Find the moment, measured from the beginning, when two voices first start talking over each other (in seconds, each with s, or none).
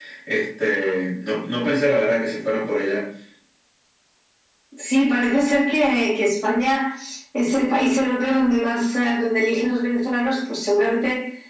none